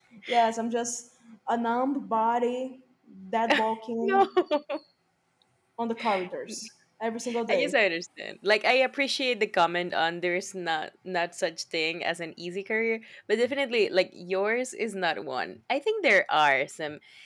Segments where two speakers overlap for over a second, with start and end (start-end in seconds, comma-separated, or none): none